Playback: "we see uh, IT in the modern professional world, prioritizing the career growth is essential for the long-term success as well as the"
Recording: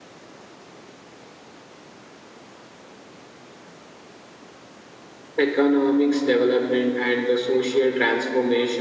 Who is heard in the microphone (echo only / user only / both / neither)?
user only